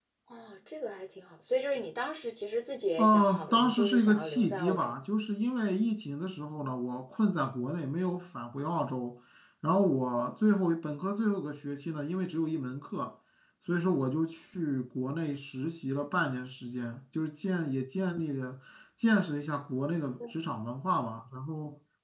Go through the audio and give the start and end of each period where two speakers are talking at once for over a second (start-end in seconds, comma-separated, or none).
3.0-4.9